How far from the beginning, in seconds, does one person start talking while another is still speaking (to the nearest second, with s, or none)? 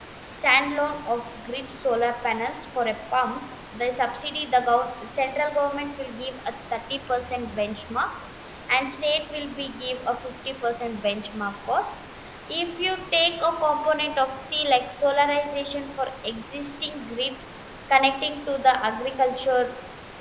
none